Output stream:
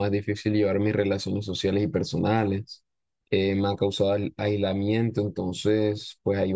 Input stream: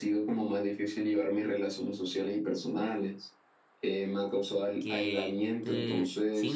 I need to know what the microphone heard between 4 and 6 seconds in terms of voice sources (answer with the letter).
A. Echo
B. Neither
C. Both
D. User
C